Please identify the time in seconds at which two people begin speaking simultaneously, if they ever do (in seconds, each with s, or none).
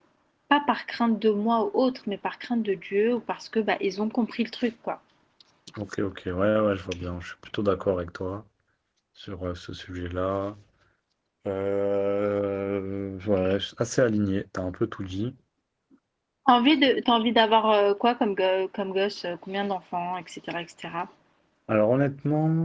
none